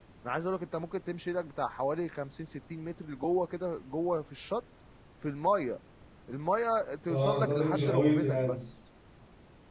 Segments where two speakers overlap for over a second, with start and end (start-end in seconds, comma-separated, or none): 7.1-8.6